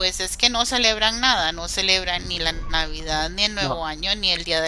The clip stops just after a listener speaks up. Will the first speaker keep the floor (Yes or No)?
Yes